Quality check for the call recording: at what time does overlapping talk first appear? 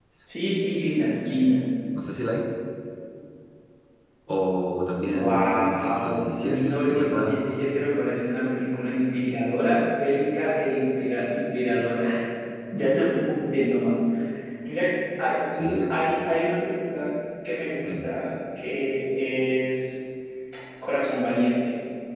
5 s

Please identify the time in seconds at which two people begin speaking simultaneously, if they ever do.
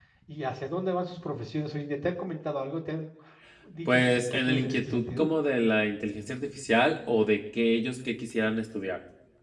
4 s

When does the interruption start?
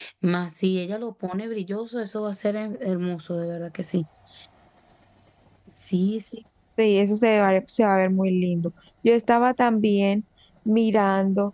none

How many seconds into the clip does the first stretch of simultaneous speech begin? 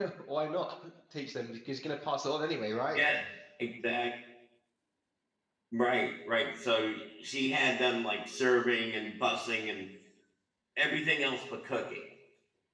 none

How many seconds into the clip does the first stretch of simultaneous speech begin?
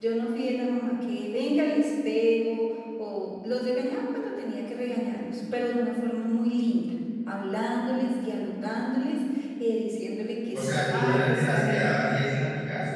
11 s

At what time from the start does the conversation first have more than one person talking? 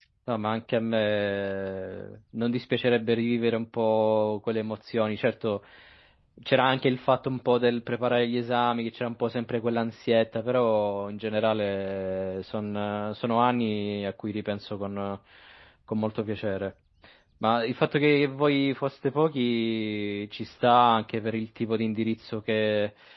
none

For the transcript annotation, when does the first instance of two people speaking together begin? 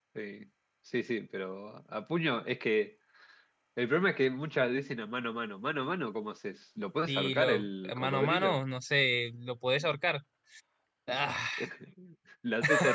7 s

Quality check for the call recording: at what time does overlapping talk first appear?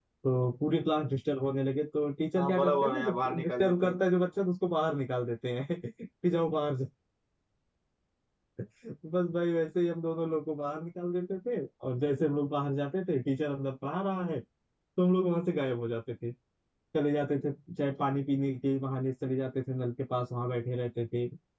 2 s

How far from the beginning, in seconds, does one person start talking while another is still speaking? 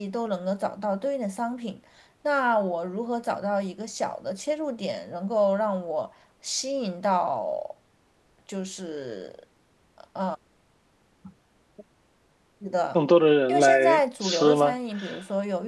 13 s

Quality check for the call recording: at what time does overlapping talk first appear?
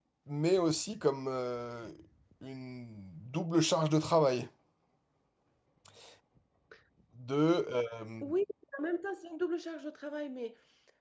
none

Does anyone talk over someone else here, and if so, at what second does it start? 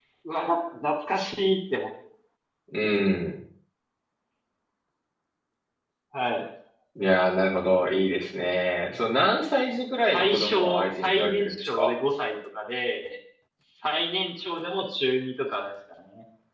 10 s

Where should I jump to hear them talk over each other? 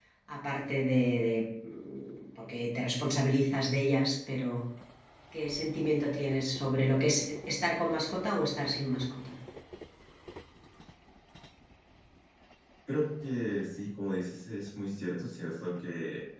none

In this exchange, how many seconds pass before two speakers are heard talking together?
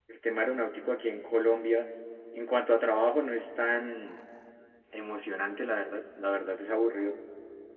none

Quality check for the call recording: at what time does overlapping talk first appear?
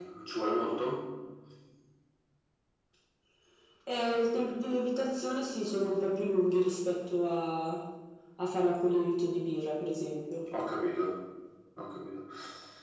none

